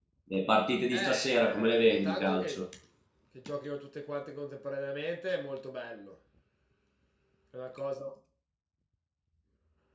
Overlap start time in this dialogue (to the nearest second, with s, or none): 1 s